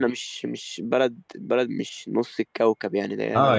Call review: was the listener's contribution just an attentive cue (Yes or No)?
No